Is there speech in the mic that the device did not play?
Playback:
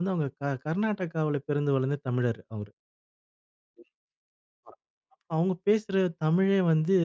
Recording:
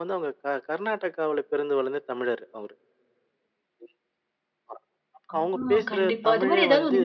Yes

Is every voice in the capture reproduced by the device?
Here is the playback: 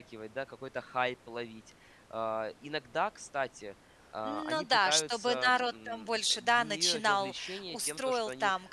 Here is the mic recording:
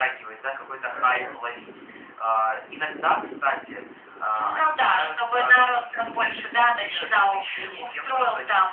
Yes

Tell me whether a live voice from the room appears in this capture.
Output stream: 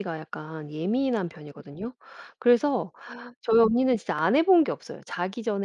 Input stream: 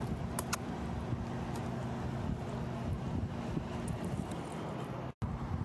No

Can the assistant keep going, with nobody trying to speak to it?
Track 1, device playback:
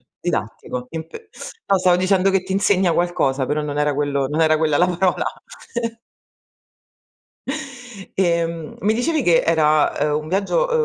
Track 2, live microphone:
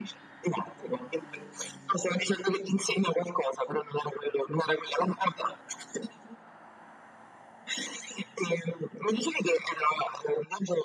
Yes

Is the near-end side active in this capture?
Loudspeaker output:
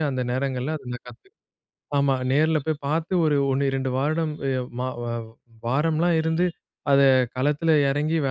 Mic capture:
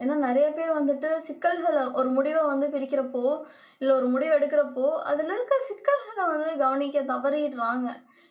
Yes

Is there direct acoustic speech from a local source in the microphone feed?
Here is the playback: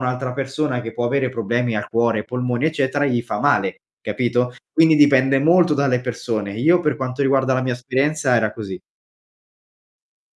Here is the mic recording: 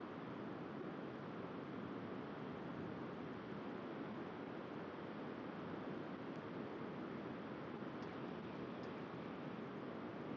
No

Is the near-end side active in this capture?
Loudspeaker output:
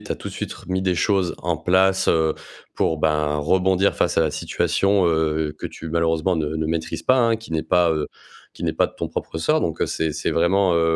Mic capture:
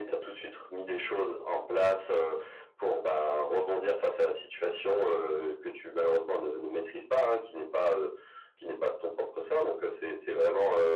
No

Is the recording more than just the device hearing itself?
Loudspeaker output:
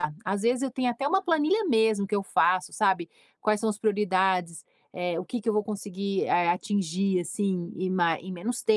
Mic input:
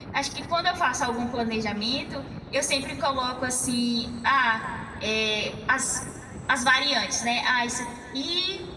Yes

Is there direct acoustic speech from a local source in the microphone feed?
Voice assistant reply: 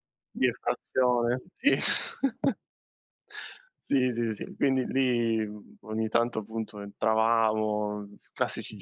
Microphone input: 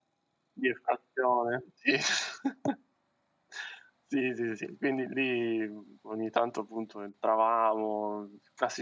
No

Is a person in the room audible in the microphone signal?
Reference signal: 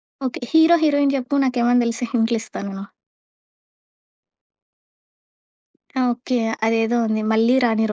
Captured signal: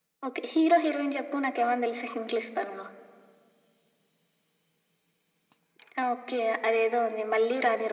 No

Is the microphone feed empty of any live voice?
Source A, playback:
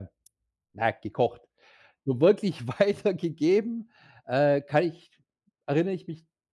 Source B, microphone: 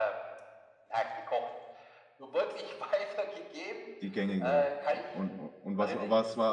No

